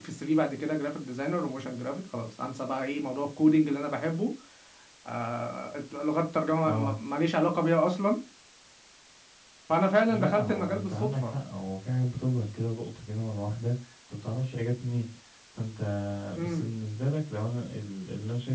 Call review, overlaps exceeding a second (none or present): present